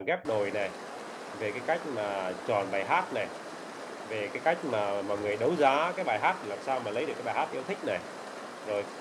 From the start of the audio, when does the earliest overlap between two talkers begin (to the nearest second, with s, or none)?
none